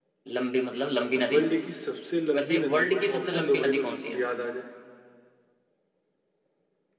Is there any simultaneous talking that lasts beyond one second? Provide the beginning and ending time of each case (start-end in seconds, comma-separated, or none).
2.3-4.2